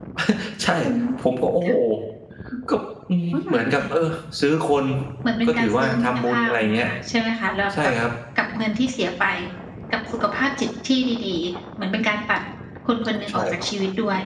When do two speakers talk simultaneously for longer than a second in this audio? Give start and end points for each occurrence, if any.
5.4-6.9

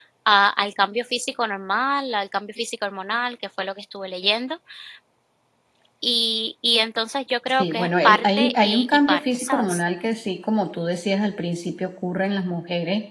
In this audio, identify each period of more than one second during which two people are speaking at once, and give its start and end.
7.6-9.8

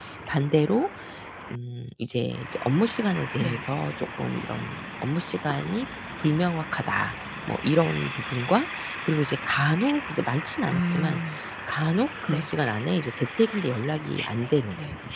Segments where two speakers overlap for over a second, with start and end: none

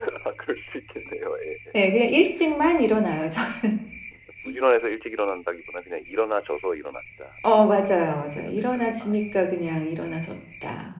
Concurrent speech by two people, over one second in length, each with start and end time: 7.4-9.1

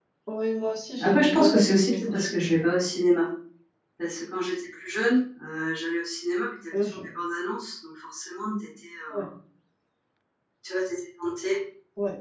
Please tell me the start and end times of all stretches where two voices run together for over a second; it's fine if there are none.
1.0-2.6

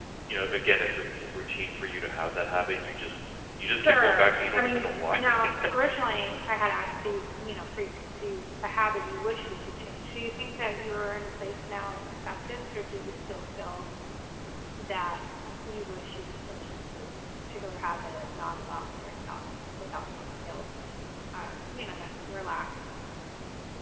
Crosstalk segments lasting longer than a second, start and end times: 3.9-5.2

